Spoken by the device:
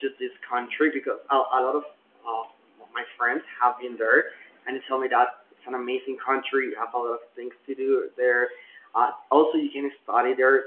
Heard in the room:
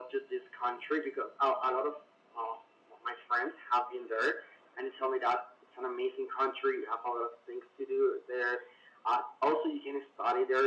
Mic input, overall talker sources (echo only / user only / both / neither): echo only